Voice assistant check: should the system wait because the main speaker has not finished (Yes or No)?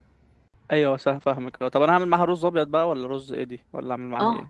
No